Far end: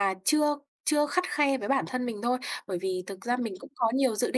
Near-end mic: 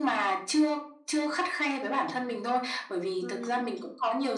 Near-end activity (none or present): present